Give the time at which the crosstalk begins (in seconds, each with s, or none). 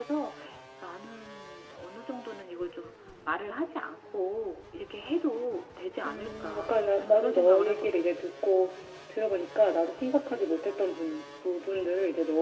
6.0 s